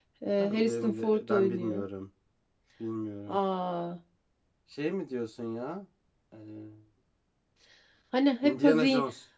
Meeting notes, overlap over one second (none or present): present